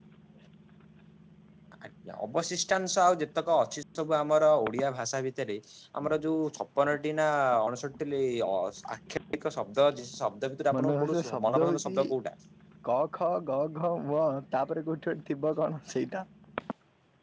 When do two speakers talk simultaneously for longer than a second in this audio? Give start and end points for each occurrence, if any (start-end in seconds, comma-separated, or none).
10.8-12.0